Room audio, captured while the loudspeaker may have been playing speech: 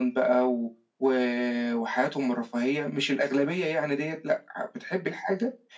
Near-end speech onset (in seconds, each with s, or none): none